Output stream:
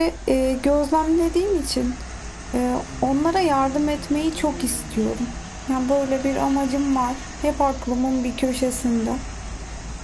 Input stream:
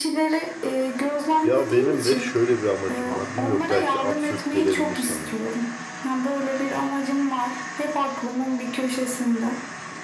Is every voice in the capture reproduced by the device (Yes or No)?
No